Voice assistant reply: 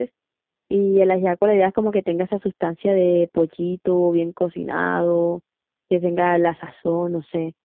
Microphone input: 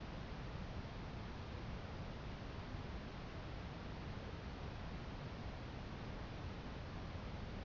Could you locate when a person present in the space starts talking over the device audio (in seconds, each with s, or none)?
none